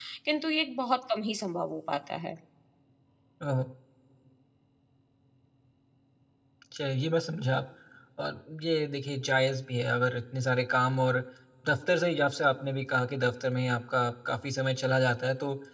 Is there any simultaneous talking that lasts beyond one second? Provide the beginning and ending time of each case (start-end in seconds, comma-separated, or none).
none